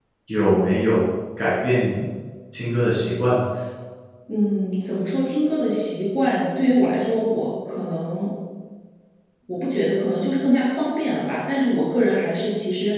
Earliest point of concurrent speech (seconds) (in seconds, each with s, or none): none